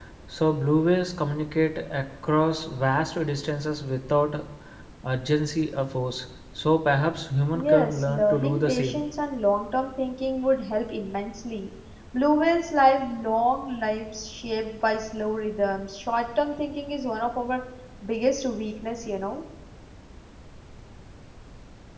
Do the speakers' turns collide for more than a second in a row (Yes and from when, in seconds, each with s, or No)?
Yes, from 7.5 s